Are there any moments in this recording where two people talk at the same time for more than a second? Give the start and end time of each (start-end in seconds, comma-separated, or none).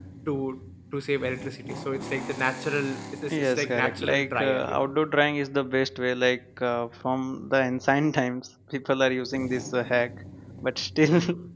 3.3-4.9